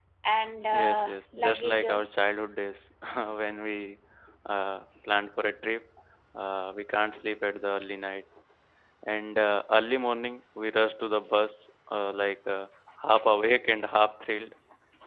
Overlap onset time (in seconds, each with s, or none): 0.8 s